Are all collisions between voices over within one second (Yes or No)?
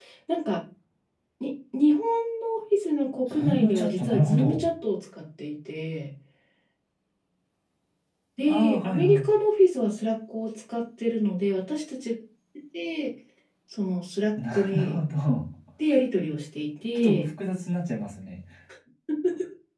No